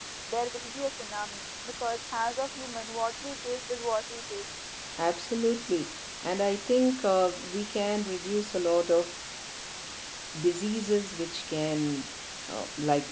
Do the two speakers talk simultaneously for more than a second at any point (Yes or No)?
No